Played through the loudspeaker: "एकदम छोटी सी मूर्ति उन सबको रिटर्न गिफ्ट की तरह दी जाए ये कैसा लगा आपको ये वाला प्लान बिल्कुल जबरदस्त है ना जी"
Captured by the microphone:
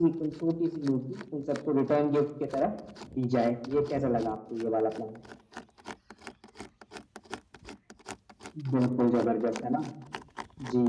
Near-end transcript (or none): none